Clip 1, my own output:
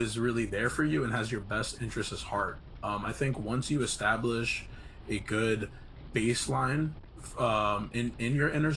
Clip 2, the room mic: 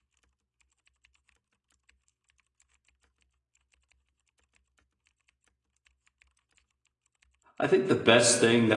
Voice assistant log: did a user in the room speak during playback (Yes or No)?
Yes